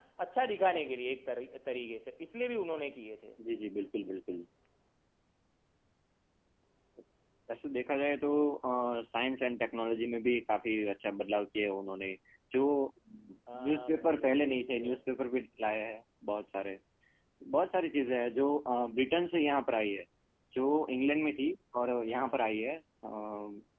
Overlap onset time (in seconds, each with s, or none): 13.5 s